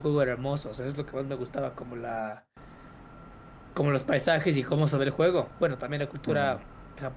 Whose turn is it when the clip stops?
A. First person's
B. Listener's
A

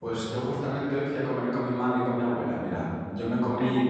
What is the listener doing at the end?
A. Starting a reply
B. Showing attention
B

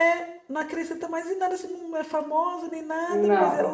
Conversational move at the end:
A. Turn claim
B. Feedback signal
B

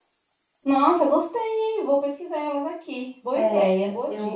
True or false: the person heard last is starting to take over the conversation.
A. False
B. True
B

